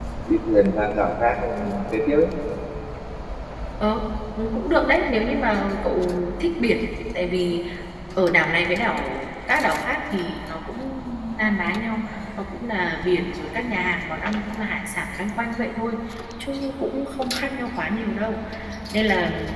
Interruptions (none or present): none